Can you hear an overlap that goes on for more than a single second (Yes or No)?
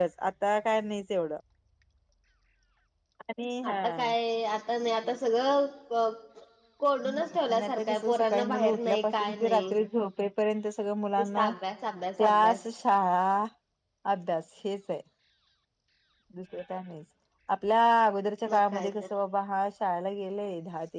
Yes